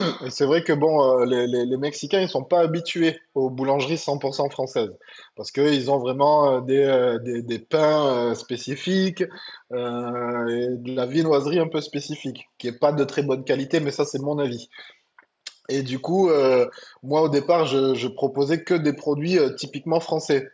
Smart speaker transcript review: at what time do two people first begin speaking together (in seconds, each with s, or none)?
none